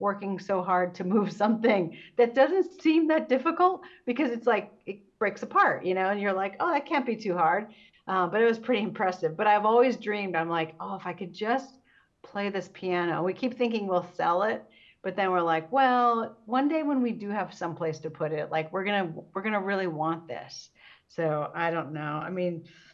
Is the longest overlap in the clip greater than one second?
No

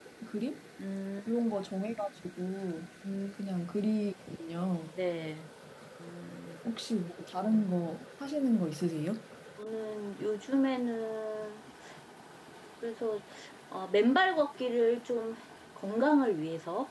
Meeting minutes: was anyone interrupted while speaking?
No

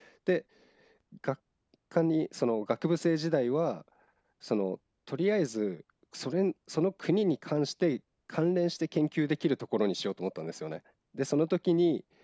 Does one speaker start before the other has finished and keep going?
No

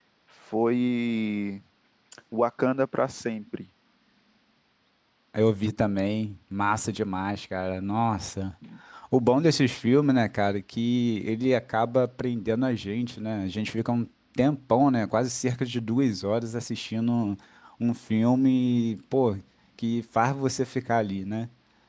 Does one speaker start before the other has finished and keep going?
No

